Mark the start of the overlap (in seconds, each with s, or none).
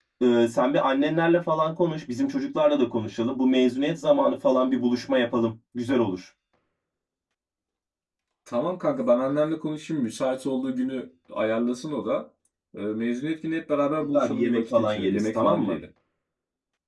14.1 s